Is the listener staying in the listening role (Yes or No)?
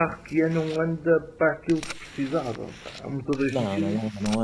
No